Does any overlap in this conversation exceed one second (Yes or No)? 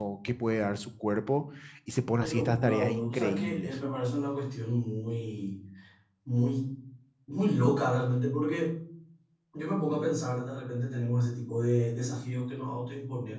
Yes